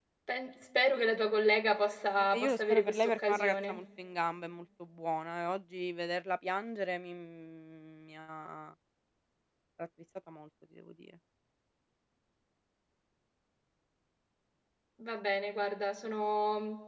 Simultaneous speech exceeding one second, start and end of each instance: 2.2-3.8

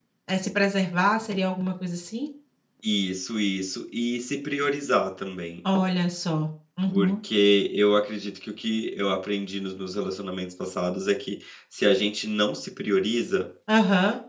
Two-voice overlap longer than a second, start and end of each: none

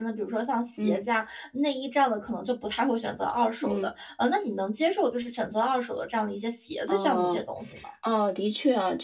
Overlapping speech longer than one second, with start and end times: none

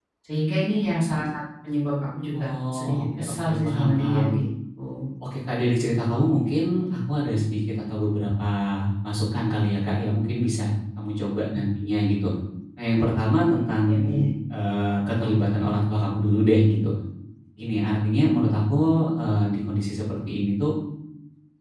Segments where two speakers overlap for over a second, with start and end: 2.3-4.2

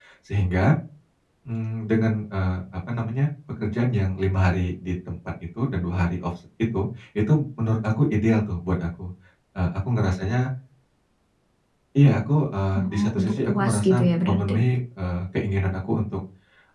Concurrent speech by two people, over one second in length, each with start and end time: 12.8-14.6

